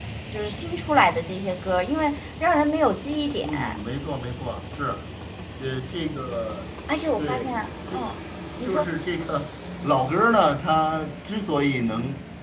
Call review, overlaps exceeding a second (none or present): none